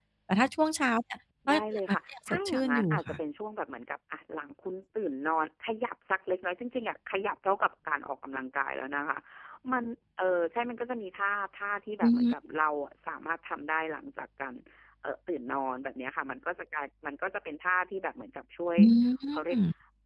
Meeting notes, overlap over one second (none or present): present